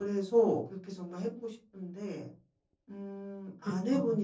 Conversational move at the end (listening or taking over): listening